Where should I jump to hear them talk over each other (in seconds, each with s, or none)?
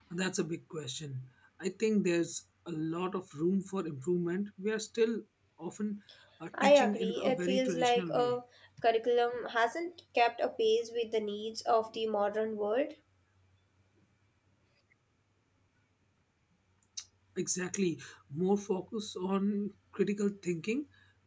6.6 s